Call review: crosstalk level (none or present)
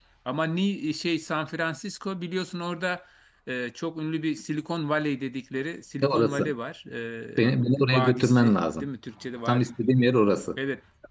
present